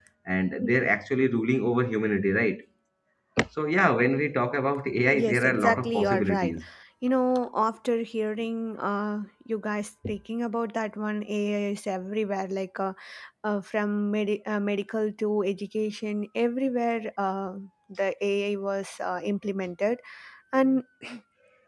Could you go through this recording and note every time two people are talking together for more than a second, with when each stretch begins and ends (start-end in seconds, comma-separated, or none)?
5.2-6.6